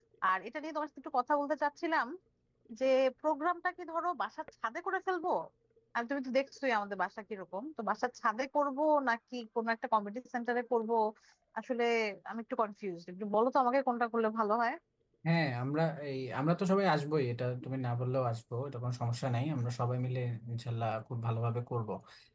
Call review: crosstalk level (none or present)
none